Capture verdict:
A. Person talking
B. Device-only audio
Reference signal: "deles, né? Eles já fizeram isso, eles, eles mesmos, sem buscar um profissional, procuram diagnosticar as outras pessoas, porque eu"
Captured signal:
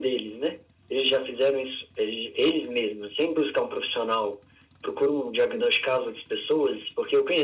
B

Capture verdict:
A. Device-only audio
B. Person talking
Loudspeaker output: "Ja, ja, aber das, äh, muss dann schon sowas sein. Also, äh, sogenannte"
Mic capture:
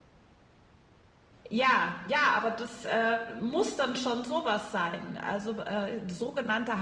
A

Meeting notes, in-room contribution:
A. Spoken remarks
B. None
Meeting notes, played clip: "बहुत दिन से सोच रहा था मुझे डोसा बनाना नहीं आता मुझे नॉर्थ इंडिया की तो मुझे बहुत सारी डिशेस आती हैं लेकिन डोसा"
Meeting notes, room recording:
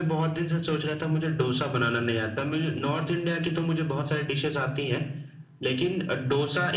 B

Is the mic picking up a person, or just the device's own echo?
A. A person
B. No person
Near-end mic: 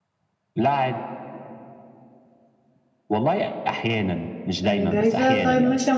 A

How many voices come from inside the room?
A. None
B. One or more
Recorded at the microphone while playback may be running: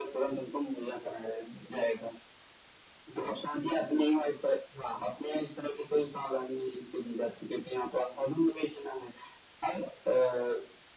A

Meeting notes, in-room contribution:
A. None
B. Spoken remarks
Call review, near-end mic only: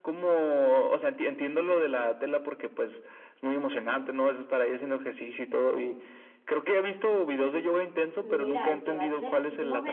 B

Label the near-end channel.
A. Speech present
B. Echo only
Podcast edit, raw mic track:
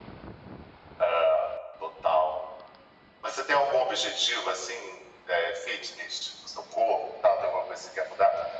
B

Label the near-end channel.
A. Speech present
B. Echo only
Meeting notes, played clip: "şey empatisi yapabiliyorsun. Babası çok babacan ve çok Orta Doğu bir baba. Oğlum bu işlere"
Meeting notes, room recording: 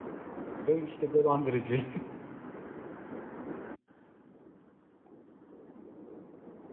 A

